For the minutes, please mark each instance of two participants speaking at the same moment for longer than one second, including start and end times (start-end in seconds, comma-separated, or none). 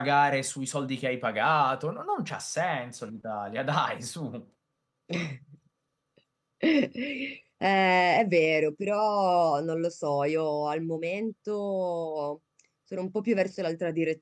none